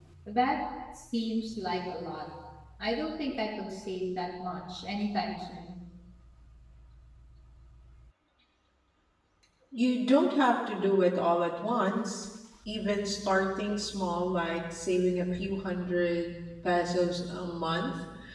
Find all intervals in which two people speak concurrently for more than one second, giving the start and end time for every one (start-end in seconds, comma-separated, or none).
none